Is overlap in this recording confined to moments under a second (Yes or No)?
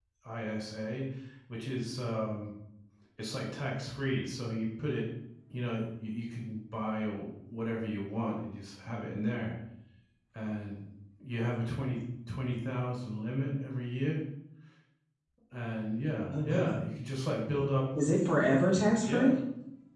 Yes